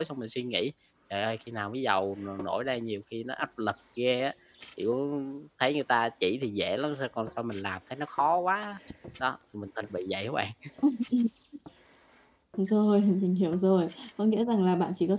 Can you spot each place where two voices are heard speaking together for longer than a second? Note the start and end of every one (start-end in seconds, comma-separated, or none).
none